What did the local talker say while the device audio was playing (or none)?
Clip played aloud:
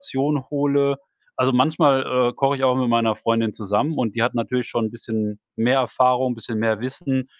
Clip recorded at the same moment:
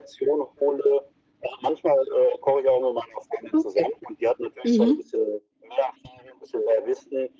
Okay. Mhm.